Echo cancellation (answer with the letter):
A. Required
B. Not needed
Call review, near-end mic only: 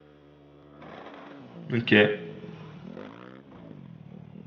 B